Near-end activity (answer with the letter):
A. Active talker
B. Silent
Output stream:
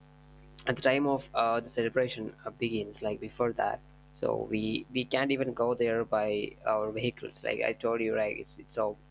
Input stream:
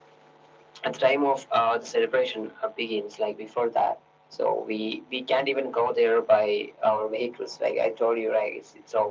B